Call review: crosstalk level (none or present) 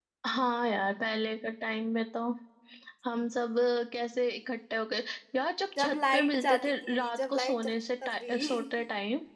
present